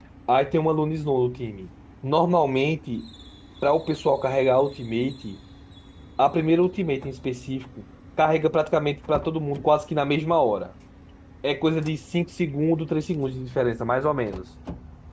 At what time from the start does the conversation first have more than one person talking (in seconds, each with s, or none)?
none